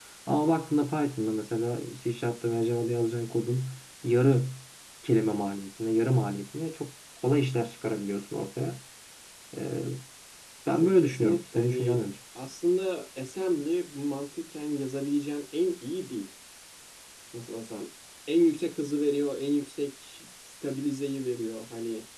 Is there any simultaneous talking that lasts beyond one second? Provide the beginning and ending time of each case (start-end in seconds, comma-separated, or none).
10.7-12.0